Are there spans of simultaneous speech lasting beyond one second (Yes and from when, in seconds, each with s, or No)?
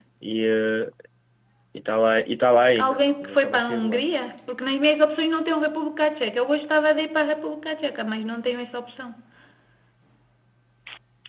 Yes, from 2.8 s